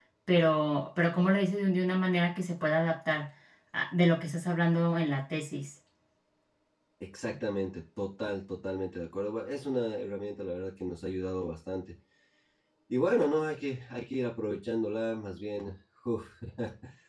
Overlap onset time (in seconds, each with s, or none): none